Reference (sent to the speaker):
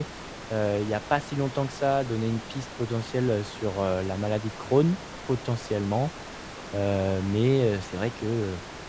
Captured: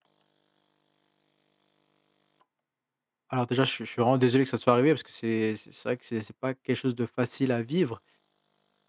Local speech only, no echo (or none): Alors déjà, je suis je suis vraiment désolé que ça te soit arrivé parce que c'est c'est c'est vrai que c'est c'est pas quelque chose de facile à vivre.